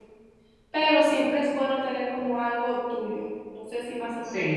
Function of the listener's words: listening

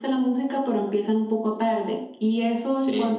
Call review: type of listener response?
listening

